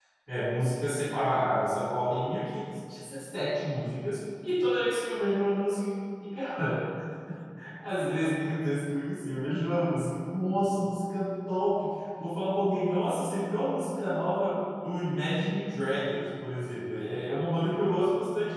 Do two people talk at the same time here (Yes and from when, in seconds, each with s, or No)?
No